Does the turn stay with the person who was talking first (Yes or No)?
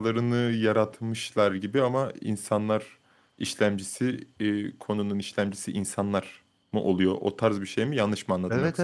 No